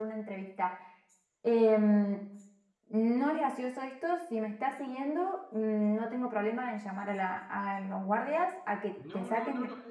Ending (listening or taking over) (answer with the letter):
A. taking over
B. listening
A